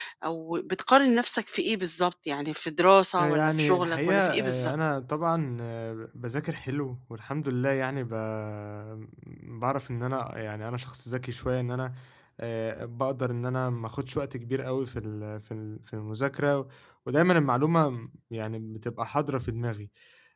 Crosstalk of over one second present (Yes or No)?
Yes